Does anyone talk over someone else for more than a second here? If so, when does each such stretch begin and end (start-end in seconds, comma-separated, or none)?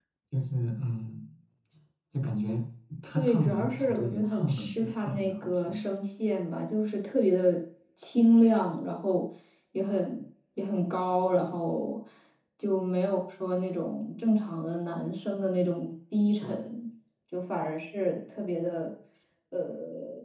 3.1-5.8